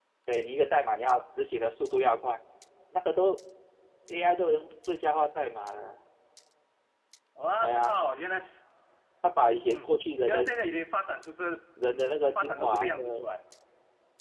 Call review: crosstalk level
present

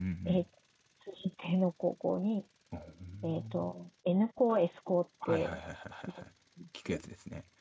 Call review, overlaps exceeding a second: none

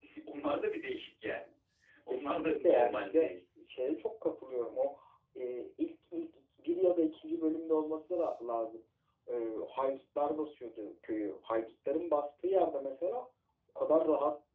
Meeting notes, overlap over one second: present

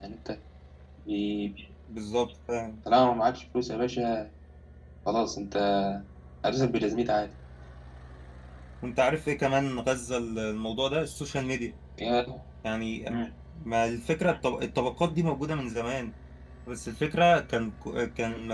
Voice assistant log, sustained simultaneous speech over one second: none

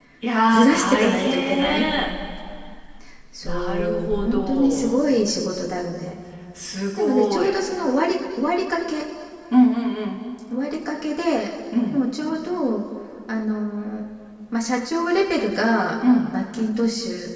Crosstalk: present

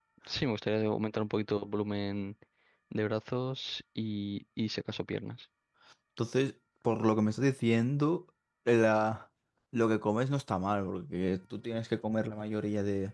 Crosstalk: none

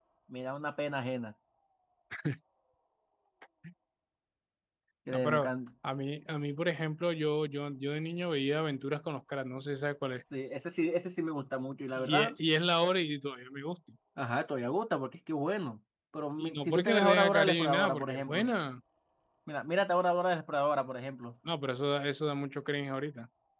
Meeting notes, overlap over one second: present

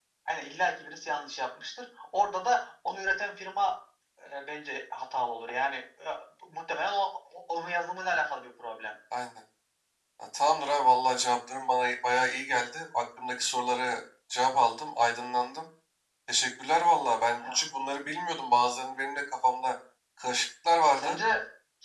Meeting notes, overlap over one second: none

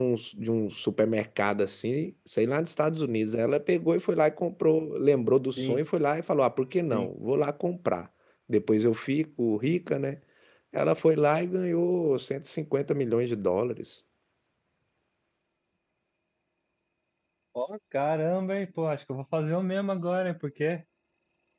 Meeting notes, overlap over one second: none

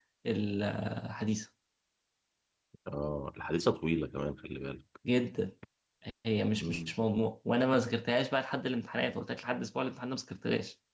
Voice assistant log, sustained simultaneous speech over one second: none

